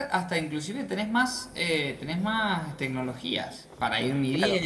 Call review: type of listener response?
taking over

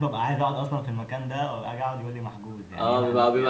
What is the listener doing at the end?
taking over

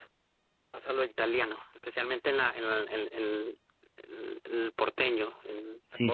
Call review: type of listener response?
taking over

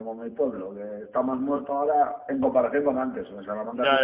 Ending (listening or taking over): taking over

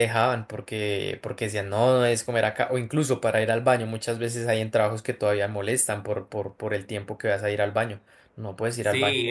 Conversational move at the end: taking over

